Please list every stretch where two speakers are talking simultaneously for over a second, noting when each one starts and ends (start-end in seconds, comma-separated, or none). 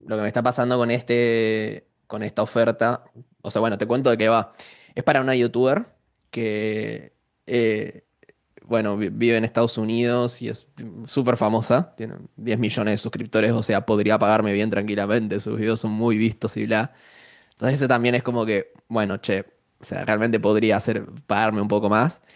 none